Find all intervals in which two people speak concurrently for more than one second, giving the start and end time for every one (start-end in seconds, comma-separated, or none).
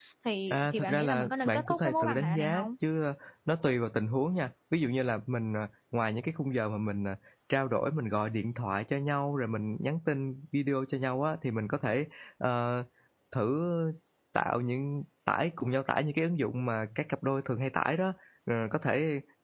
0.5-2.7